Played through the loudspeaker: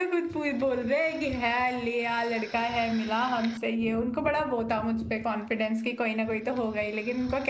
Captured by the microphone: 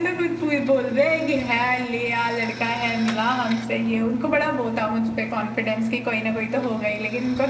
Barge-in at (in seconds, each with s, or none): none